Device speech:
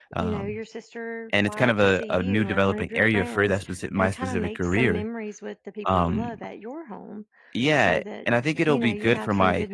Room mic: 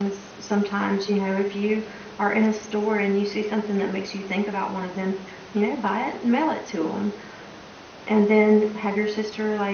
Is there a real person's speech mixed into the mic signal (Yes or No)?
Yes